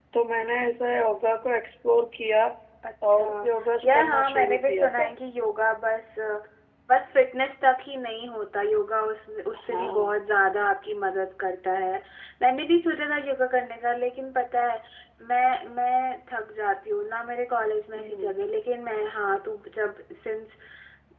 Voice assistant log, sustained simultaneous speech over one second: present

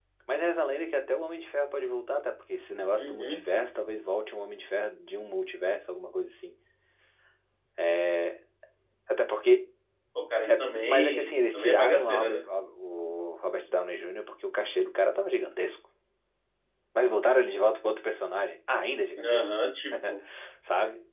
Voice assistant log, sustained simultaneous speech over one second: present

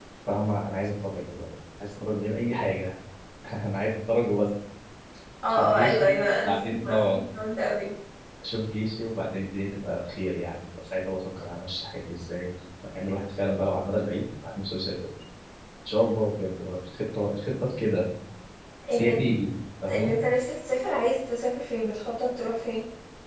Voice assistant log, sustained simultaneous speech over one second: present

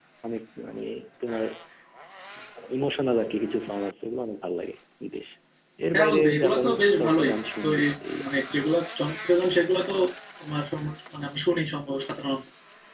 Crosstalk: present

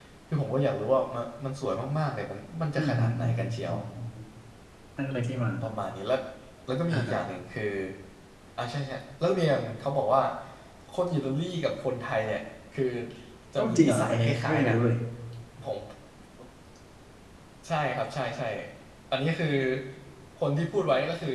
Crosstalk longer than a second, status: present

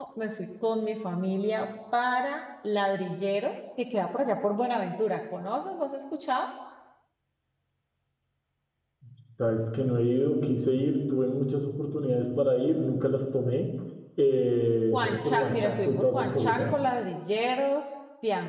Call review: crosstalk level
present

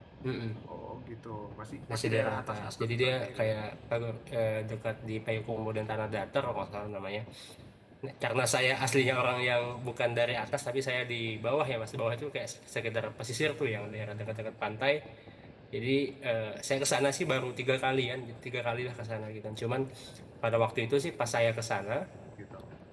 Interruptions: present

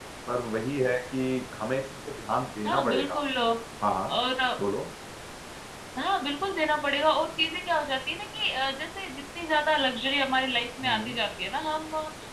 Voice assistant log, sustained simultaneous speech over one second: none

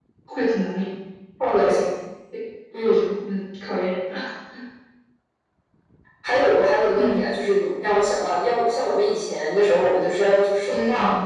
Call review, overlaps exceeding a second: none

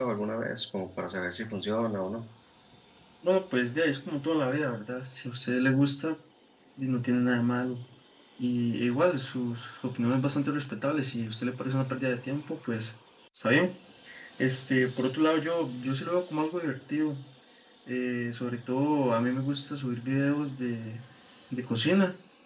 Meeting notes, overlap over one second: none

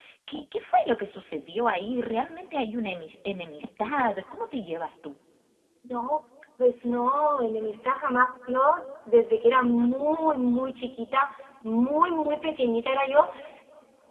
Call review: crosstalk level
none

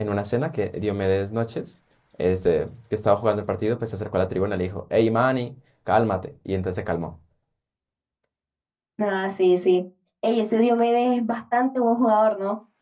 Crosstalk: none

